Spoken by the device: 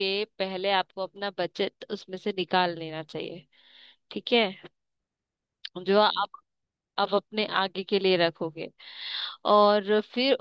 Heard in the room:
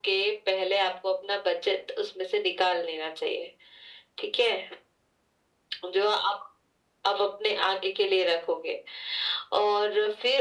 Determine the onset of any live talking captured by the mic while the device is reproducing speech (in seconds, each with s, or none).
none